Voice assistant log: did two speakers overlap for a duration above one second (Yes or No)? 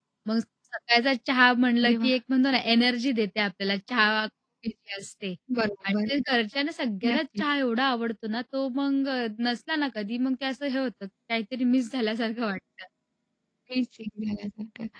No